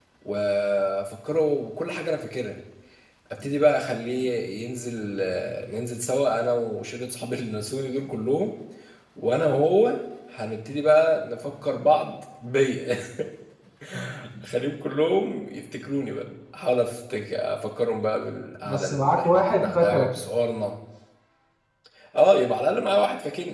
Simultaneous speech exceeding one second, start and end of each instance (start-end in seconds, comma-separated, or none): 18.6-20.1